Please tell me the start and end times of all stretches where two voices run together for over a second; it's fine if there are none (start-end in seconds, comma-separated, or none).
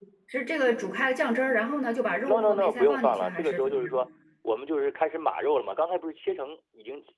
2.3-3.9